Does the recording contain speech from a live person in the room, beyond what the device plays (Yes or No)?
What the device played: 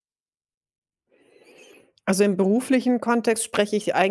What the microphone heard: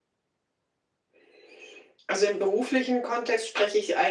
No